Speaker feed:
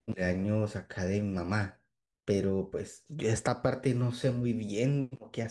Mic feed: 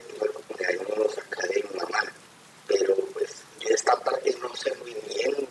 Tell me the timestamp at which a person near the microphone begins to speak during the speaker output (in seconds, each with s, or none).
none